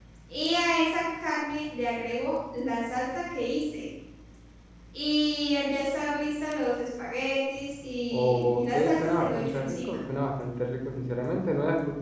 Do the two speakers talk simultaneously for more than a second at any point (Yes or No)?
Yes